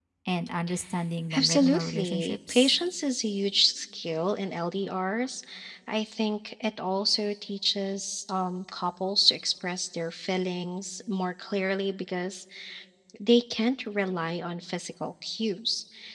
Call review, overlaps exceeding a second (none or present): present